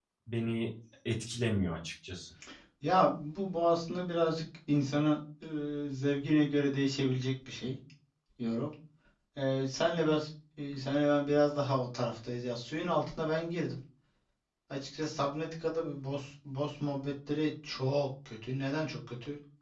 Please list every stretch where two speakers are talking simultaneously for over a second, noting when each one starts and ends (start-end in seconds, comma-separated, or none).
none